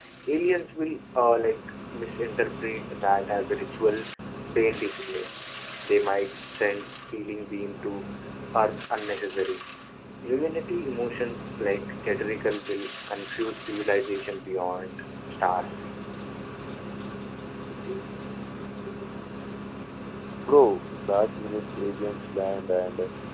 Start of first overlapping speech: none

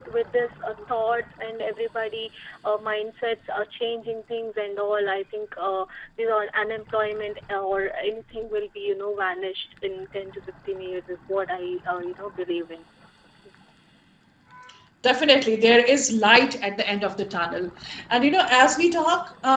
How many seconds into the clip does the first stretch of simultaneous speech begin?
none

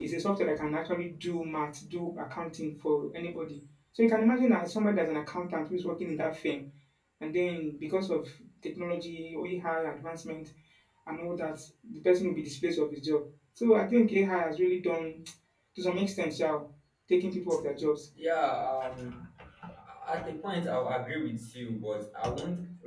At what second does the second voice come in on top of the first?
none

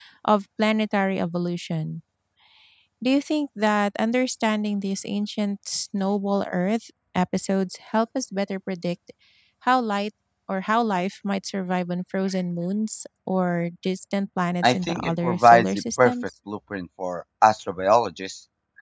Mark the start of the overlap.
14.6 s

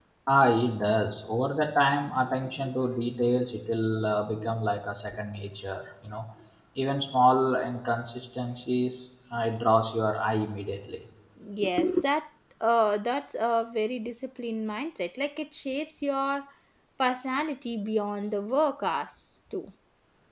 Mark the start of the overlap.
none

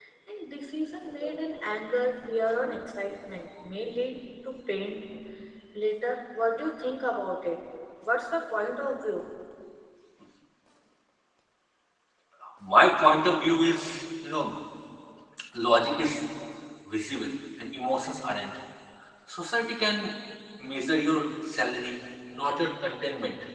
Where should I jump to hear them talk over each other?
none

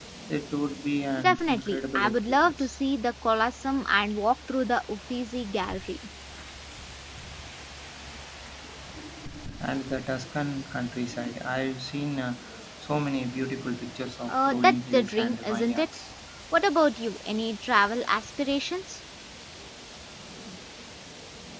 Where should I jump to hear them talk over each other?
1.2 s

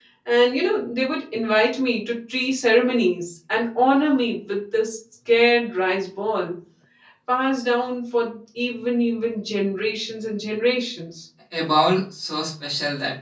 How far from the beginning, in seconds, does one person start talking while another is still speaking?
none

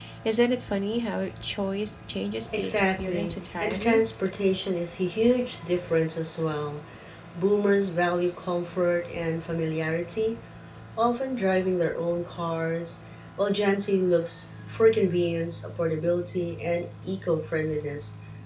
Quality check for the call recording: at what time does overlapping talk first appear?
2.4 s

